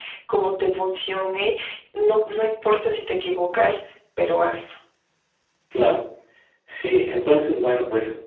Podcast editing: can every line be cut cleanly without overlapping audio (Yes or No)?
Yes